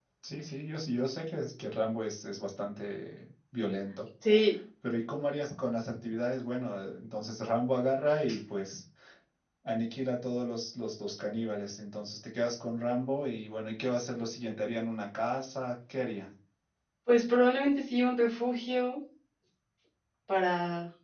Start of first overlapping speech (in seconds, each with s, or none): none